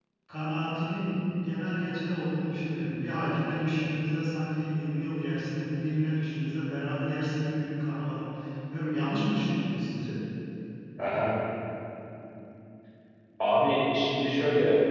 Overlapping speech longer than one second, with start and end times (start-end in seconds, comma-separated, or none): none